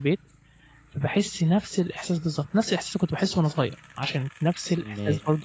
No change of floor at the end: Yes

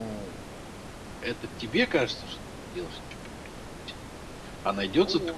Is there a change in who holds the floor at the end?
No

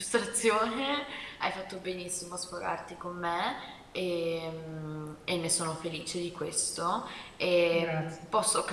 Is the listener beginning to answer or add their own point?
No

